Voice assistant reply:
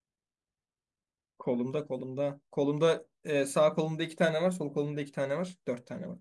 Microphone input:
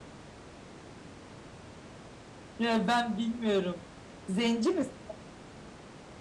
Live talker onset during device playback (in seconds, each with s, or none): 2.6 s